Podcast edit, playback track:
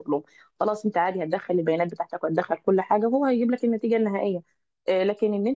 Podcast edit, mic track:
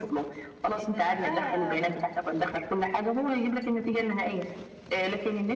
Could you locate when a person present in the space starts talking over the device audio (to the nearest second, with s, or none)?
1 s